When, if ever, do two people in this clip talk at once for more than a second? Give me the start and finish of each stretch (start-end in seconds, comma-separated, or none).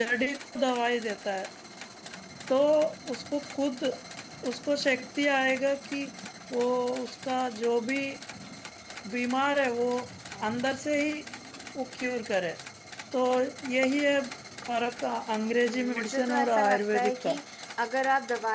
15.5-17.3